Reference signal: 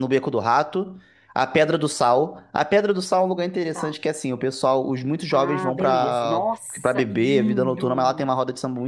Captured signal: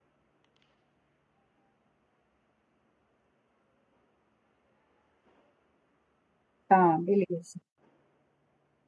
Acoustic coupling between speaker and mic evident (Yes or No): No